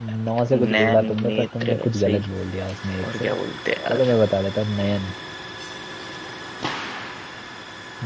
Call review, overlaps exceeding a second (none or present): present